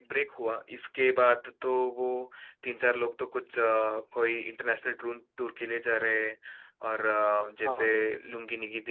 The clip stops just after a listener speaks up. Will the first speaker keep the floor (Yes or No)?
Yes